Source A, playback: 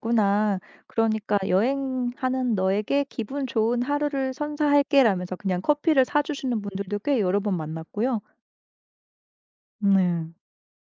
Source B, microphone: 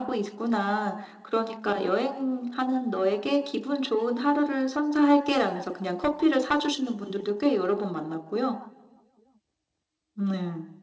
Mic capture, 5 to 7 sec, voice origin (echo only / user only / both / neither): echo only